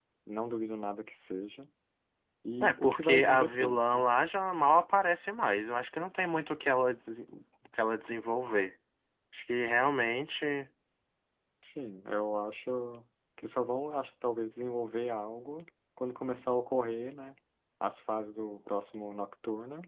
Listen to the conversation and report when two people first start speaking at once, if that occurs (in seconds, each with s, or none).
2.6 s